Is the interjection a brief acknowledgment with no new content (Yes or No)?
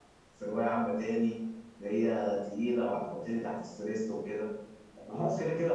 Yes